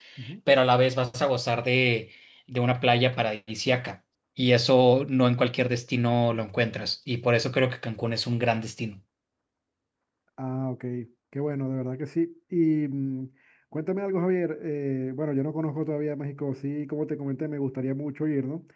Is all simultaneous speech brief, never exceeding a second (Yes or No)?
Yes